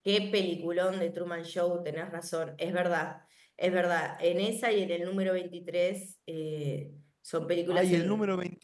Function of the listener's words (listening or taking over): taking over